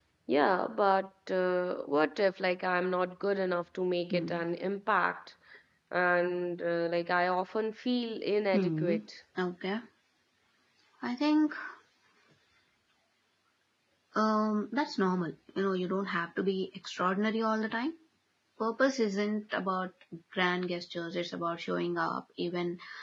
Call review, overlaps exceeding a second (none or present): none